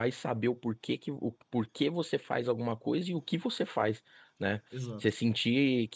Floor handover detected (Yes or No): No